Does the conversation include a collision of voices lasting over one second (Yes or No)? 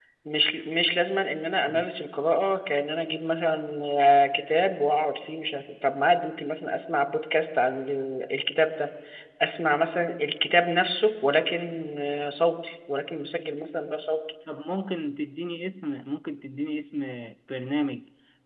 No